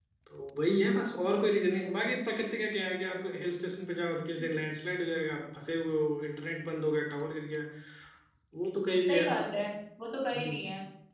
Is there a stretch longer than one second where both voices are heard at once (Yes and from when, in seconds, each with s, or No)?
No